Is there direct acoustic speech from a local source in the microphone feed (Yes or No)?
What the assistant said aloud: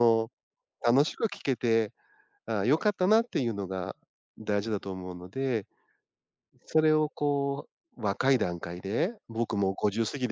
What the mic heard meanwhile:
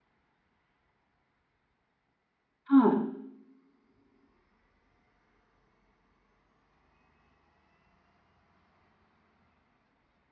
Yes